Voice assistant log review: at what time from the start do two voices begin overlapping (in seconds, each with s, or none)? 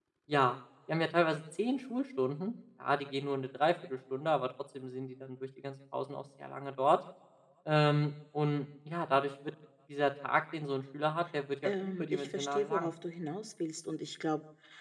11.6 s